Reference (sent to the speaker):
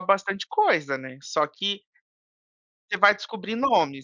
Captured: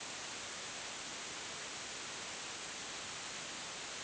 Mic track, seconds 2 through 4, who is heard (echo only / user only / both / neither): neither